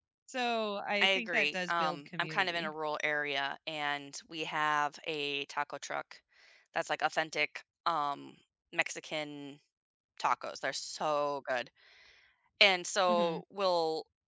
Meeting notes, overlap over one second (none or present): present